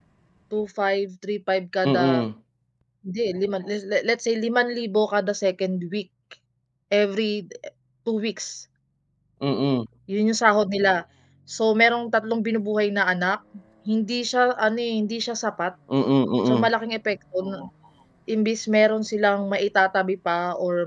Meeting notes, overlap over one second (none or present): none